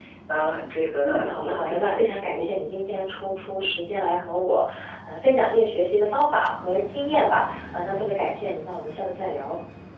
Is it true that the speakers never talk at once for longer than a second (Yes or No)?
No